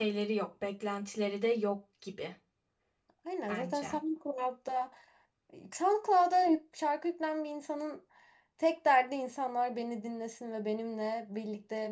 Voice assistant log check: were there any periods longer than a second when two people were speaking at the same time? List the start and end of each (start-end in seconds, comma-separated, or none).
none